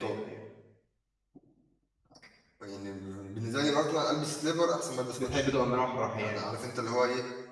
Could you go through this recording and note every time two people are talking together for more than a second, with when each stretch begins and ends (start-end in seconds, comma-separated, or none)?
none